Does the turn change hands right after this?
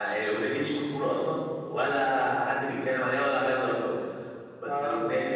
No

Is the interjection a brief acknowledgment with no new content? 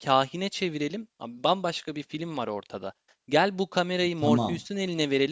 Yes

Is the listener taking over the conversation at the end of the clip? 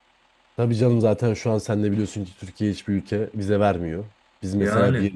No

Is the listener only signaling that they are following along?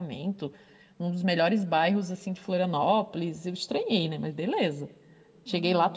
Yes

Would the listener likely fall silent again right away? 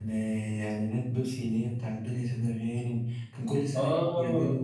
No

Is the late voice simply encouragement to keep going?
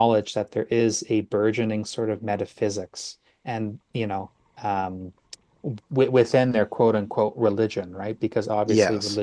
Yes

